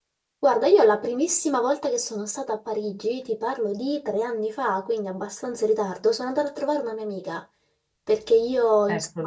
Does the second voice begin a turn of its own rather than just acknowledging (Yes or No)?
No